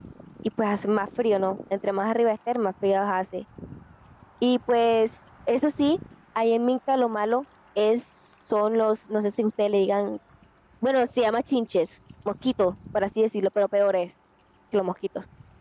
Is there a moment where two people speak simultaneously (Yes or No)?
No